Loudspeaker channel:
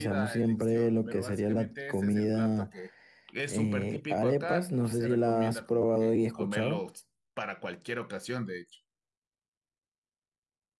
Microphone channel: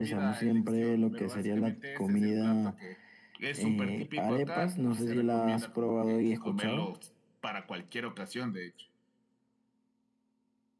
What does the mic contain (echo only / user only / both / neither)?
echo only